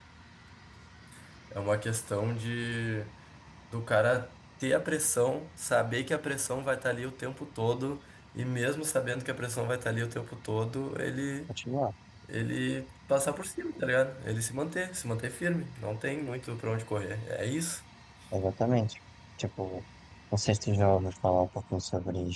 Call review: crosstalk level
none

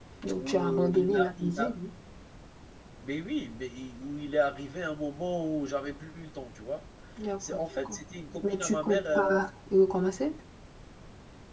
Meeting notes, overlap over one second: present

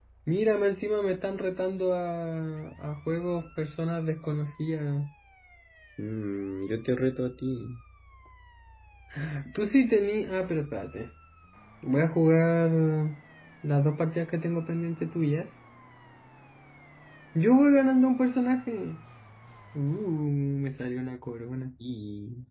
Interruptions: none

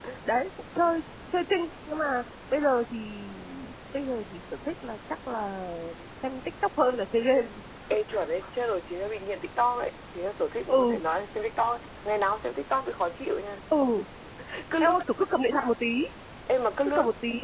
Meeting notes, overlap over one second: none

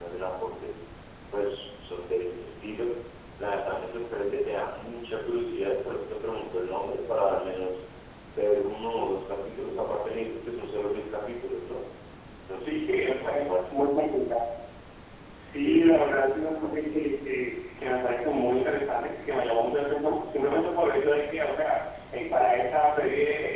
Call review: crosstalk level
present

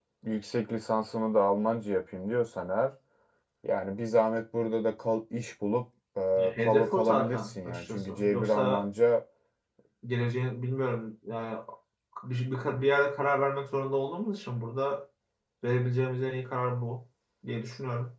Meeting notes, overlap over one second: present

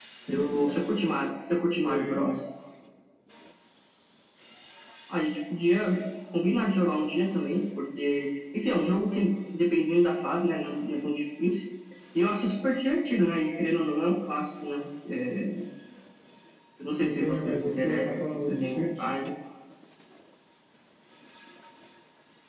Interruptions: present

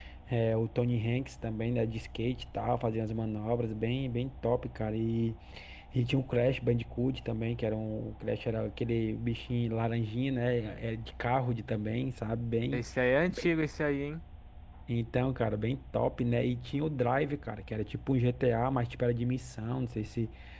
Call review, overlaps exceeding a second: none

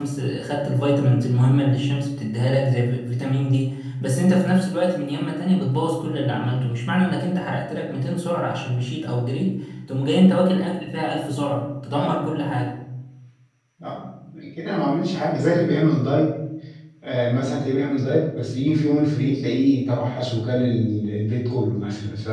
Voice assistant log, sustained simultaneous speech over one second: none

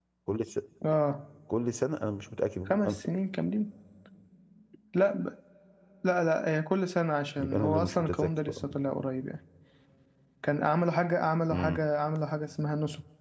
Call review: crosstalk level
present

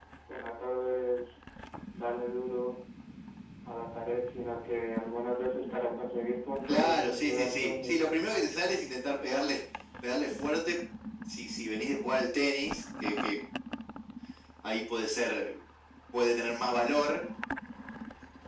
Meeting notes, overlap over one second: present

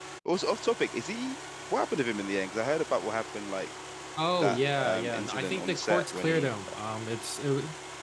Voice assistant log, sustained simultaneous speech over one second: present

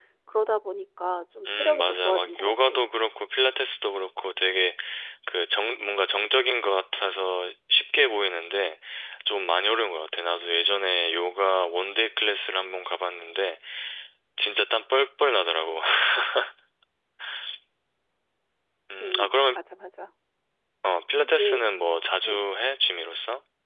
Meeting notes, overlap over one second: present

